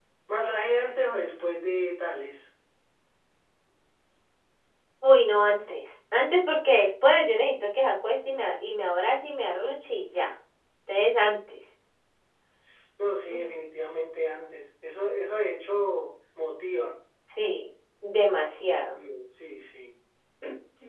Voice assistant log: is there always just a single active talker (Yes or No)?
Yes